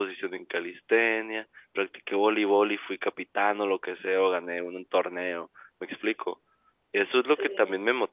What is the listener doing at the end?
listening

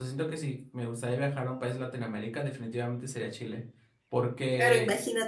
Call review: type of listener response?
taking over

